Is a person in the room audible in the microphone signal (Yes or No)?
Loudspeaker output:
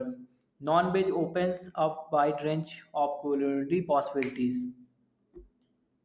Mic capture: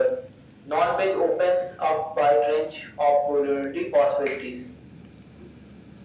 No